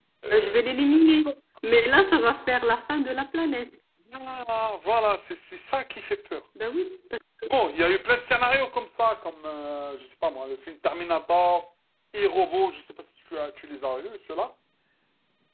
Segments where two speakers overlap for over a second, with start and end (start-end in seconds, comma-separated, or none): none